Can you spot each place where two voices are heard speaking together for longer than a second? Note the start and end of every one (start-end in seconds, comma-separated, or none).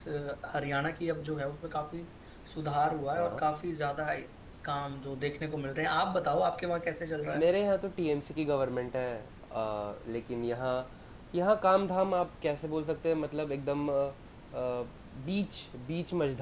none